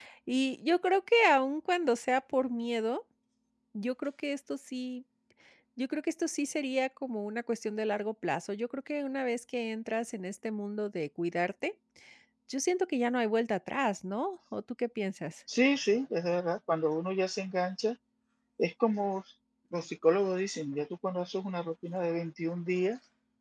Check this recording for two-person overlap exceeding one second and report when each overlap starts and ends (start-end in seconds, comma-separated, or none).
none